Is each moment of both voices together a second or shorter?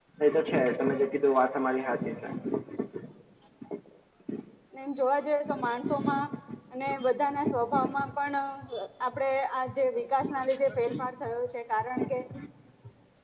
Yes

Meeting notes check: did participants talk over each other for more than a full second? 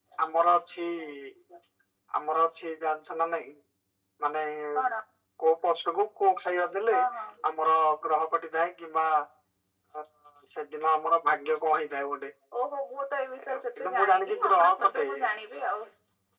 Yes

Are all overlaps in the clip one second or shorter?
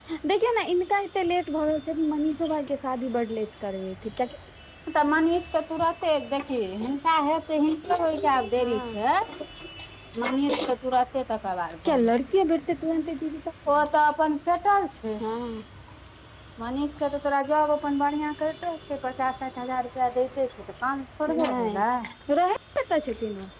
Yes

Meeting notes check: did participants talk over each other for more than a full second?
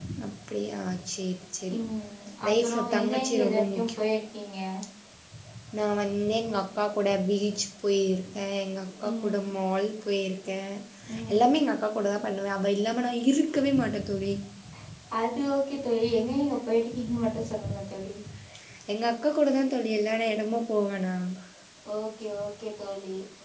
Yes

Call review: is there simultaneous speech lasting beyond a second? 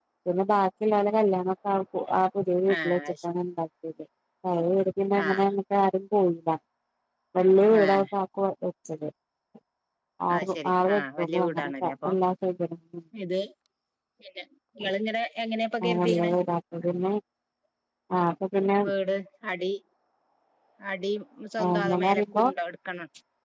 Yes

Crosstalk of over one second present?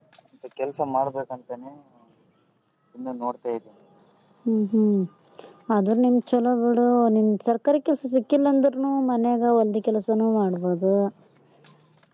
No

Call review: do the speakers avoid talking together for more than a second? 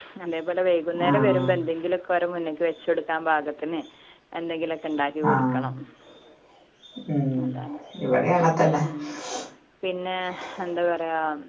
Yes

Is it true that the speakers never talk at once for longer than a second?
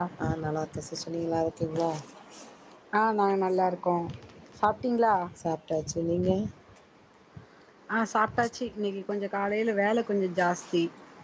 Yes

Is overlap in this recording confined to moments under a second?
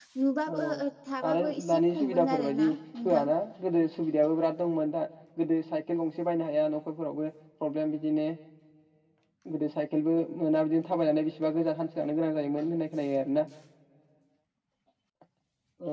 No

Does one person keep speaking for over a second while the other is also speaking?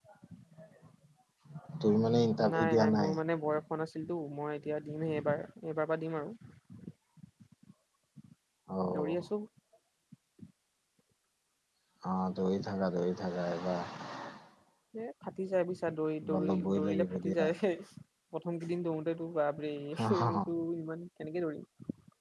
Yes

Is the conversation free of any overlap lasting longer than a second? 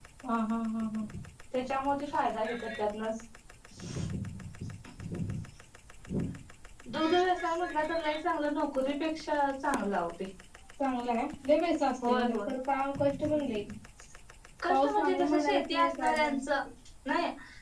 No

